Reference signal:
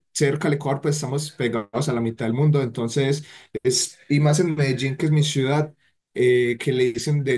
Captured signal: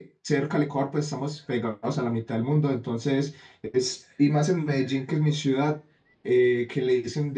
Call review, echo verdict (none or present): present